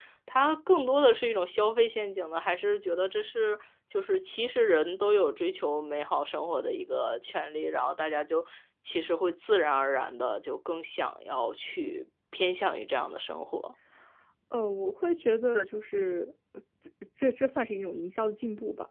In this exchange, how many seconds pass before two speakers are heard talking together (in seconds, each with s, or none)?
none